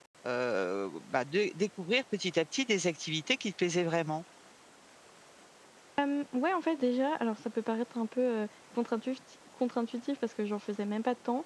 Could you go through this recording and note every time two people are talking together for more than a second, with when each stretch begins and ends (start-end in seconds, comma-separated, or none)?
none